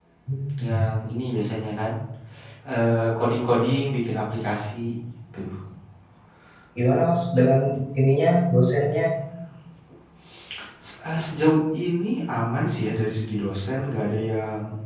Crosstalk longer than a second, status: none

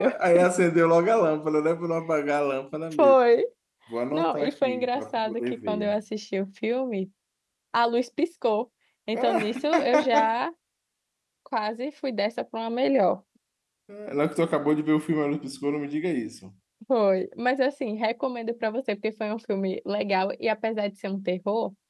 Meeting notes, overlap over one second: present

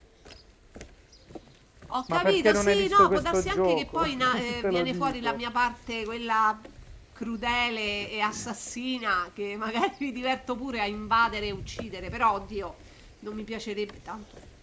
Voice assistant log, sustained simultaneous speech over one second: present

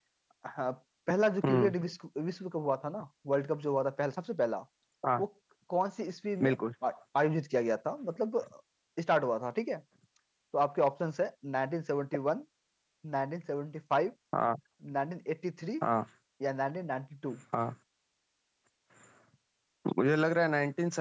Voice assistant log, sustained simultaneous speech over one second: none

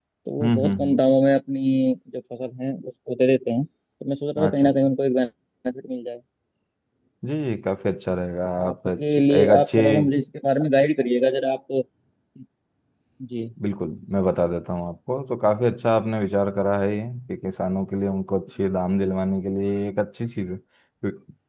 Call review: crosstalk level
present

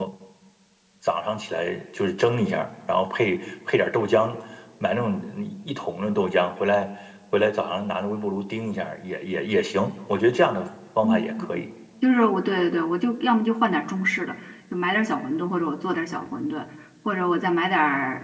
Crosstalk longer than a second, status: none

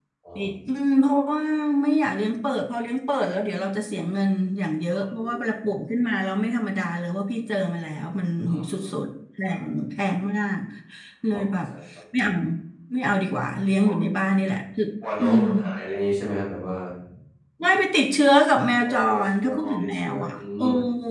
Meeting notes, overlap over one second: present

